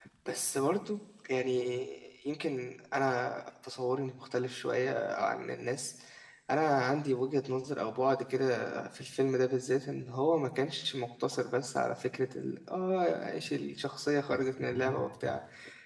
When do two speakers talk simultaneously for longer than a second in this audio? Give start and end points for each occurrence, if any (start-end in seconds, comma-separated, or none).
none